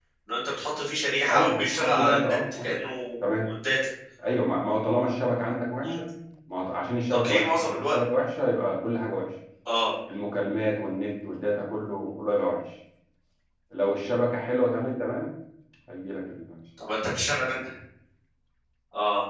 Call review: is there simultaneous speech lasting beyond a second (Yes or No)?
Yes